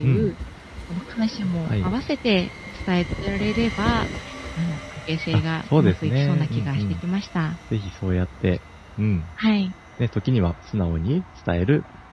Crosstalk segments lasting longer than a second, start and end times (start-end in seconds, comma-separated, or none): 5.3-6.8